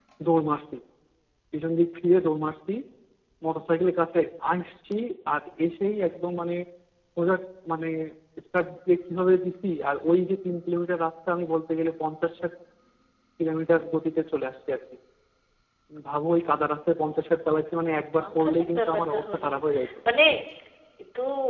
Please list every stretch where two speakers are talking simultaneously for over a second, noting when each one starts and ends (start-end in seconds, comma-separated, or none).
18.2-19.5